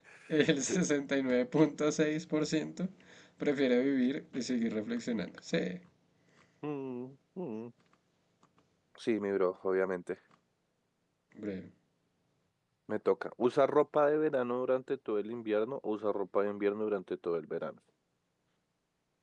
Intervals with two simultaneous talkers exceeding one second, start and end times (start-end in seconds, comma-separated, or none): none